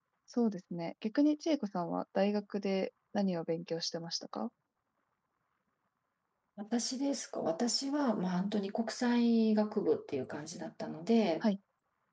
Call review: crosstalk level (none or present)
none